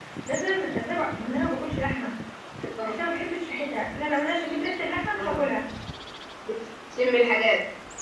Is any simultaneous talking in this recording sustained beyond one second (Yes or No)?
No